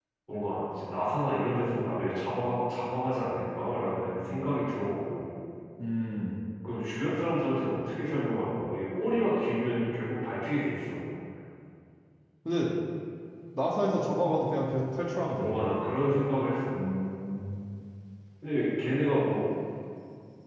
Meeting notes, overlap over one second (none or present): none